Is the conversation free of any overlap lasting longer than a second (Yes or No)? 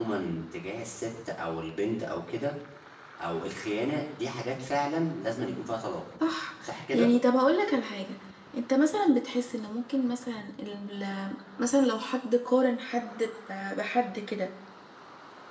Yes